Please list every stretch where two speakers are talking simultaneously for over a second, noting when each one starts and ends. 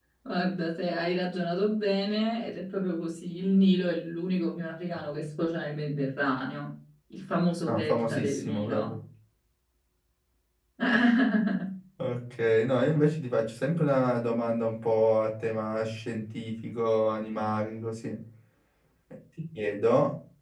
7.7-8.9

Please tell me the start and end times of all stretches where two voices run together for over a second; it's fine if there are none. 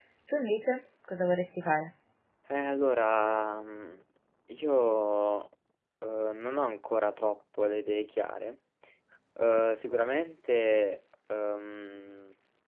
none

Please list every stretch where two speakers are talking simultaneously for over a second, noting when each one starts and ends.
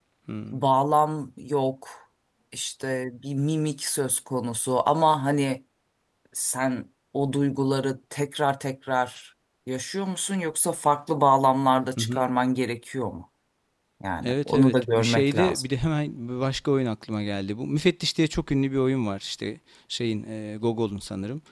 14.2-15.6

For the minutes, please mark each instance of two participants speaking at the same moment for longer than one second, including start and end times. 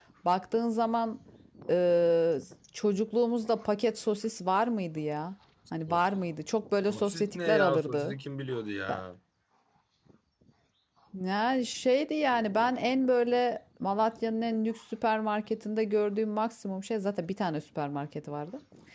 6.9-8.1

